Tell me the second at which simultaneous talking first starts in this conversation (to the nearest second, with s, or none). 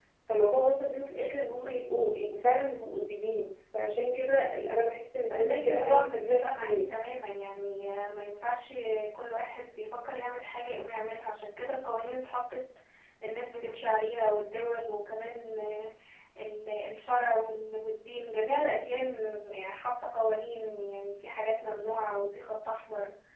5 s